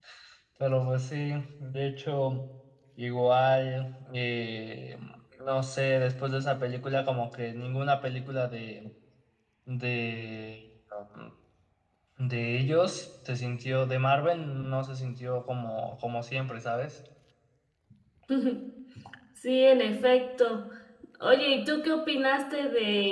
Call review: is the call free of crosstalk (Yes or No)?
Yes